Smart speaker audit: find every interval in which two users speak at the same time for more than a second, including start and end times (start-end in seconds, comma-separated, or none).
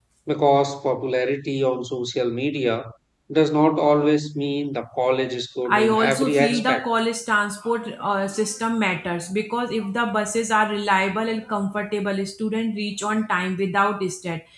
5.7-6.9